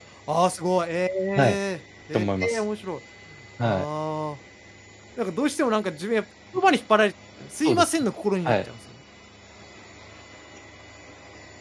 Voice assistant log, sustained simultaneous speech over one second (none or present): none